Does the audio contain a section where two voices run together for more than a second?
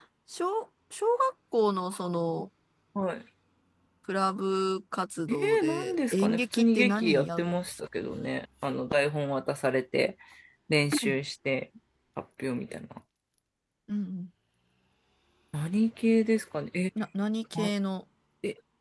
Yes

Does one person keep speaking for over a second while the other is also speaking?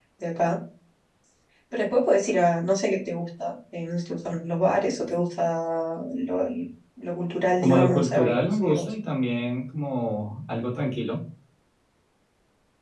Yes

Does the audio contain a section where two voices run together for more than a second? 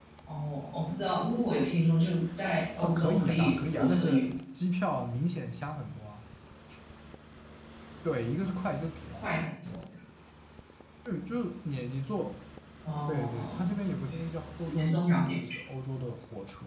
Yes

